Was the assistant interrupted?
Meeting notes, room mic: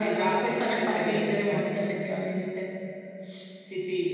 No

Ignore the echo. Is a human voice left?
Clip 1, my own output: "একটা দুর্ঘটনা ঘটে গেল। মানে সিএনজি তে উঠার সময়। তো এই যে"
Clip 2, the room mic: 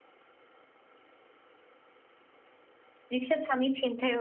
Yes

